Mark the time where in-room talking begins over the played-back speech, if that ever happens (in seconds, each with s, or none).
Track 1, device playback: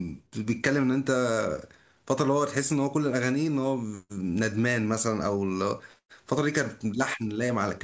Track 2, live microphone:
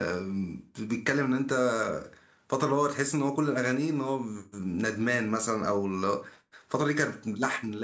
none